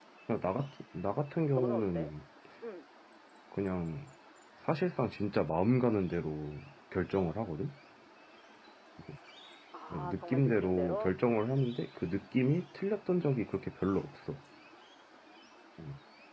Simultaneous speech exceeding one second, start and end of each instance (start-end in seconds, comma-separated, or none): 9.9-11.2